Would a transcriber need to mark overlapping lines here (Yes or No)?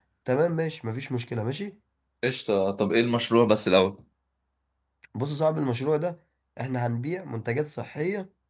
No